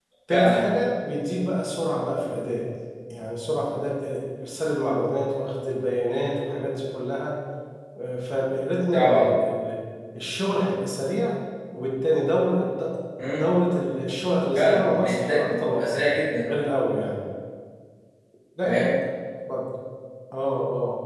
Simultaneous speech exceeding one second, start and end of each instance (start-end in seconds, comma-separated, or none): 14.6-16.1